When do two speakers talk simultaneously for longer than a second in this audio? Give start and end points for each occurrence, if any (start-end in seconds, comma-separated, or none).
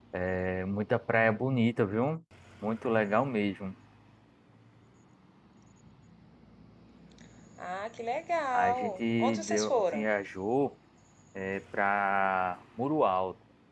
8.5-10.1